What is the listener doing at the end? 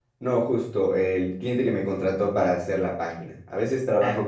listening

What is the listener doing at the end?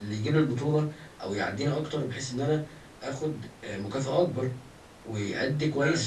taking over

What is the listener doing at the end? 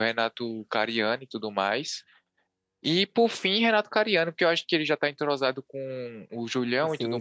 taking over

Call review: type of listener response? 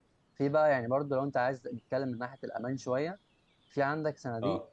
listening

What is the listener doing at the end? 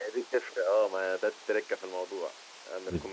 listening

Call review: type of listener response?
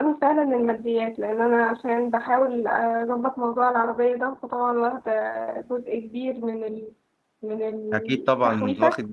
taking over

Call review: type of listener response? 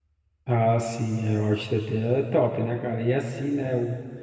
listening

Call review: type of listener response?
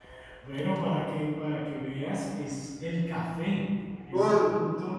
taking over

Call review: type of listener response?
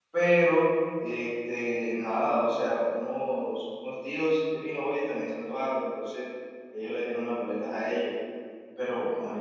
listening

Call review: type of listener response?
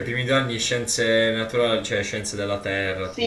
taking over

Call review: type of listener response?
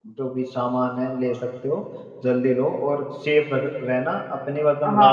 taking over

